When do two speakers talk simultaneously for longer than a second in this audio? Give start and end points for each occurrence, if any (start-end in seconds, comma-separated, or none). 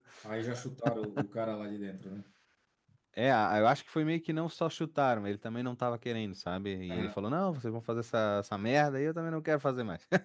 none